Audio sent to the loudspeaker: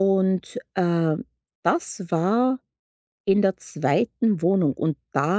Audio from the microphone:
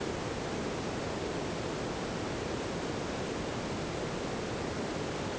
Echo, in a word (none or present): none